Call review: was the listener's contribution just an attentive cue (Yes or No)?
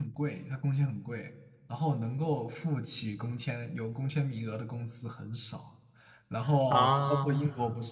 Yes